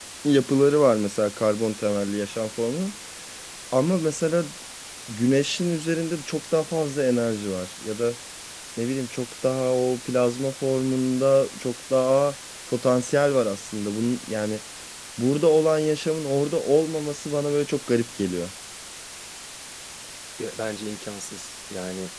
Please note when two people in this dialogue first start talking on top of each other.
none

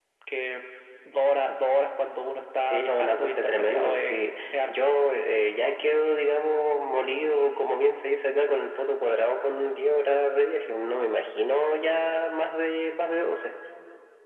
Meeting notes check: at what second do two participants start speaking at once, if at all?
2.7 s

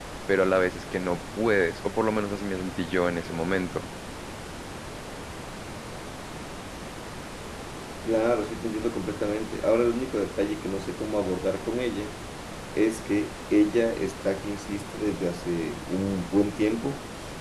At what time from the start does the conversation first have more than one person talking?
none

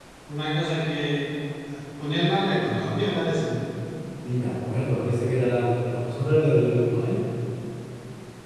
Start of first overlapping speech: none

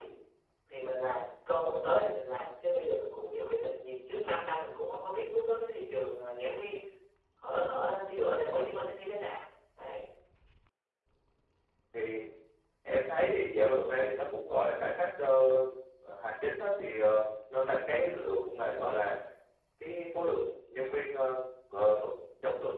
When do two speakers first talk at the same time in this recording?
none

